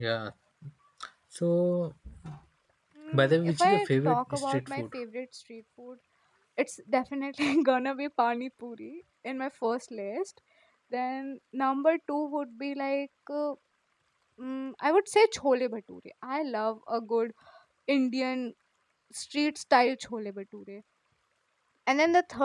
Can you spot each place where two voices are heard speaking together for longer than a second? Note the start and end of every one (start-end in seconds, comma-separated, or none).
3.1-4.8